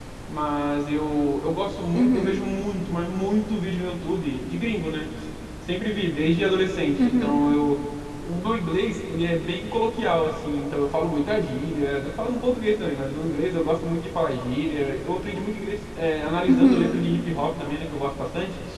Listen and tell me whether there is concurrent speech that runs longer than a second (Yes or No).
No